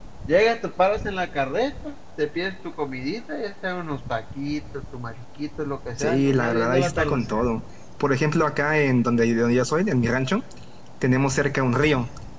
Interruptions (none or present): present